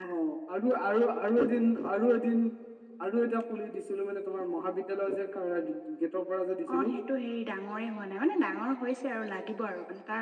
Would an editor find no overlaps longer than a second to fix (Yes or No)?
Yes